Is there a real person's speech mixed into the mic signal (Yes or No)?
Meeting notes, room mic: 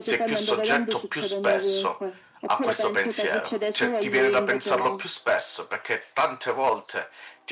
Yes